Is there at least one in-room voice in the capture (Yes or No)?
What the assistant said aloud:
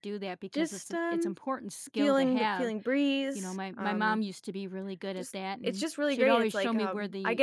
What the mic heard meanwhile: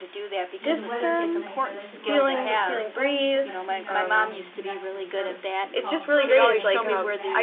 Yes